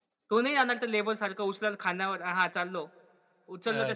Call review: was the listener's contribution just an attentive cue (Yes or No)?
Yes